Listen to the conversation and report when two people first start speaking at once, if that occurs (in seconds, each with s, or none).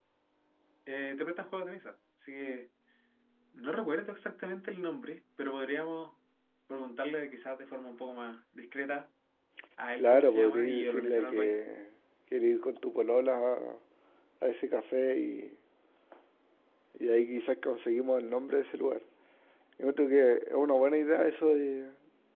10.0 s